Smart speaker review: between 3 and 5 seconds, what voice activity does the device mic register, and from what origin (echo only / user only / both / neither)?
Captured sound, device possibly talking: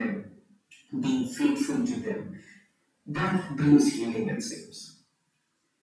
echo only